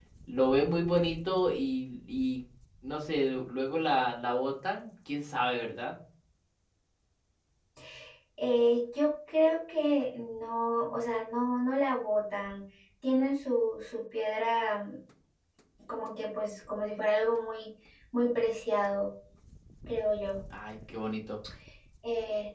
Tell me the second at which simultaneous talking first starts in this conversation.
none

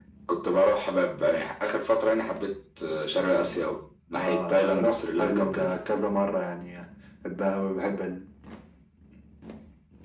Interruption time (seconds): 4.1 s

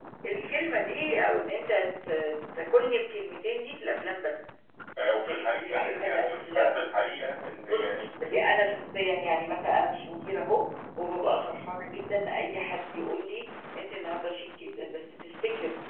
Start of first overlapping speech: 5.2 s

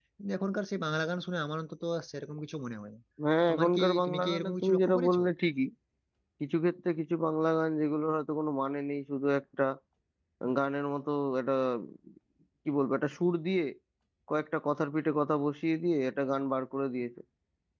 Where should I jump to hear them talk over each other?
3.5 s

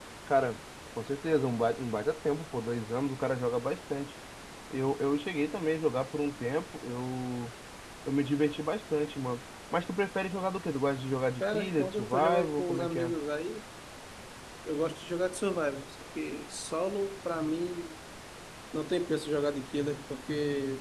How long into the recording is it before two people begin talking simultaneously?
11.4 s

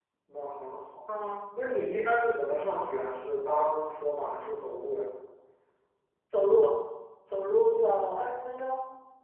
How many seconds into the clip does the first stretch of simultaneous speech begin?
none

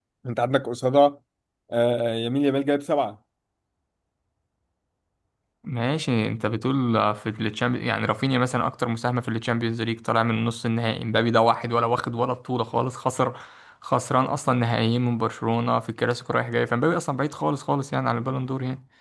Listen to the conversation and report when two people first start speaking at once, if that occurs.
none

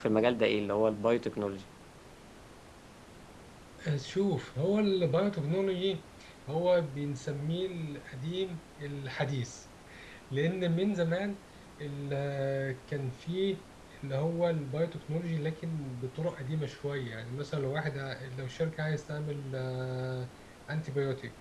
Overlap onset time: none

